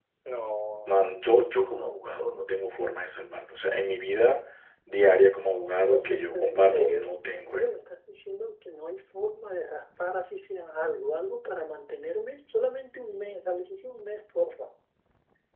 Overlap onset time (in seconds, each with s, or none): 5.8 s